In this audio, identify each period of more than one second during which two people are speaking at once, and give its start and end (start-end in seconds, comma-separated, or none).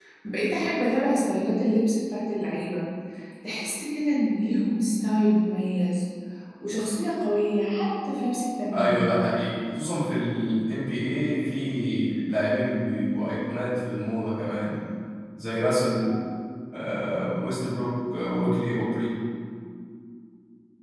none